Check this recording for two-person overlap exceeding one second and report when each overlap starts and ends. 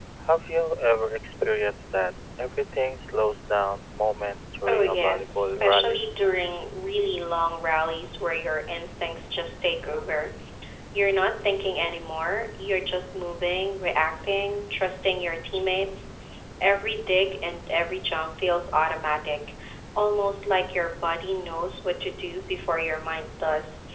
4.7-6.0

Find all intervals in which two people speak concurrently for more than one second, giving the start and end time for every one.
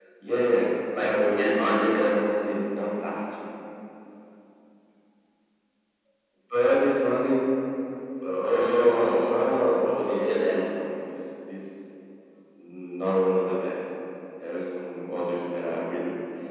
1.0-2.2, 8.5-10.9

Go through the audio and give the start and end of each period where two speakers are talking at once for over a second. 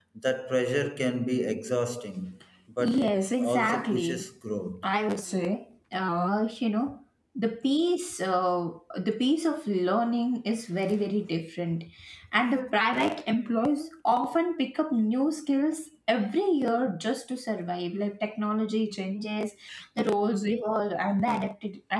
2.8-4.3

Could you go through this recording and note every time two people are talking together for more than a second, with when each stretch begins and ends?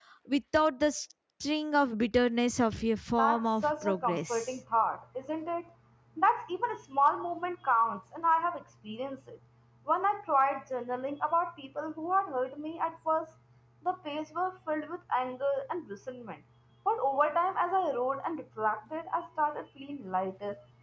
3.2-4.5

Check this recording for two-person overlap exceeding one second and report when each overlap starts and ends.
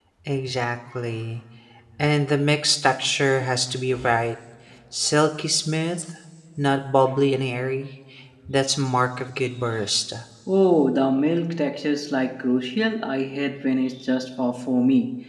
none

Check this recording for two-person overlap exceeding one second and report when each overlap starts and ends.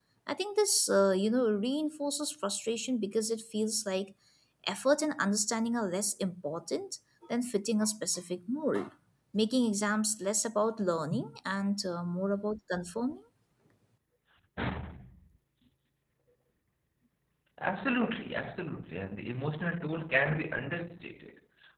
none

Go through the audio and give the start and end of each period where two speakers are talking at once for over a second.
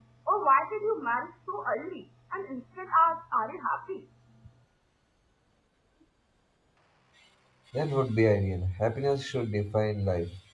none

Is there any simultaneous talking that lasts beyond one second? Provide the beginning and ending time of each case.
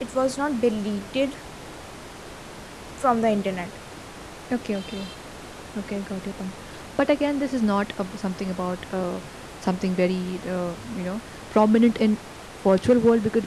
none

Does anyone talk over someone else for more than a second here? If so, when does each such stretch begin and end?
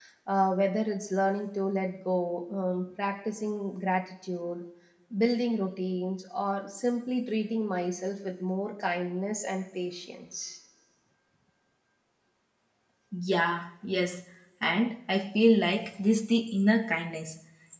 none

